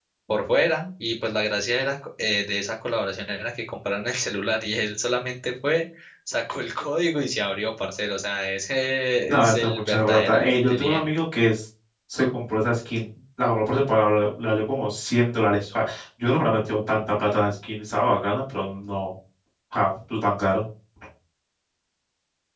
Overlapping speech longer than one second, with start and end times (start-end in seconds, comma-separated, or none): 9.3-11.1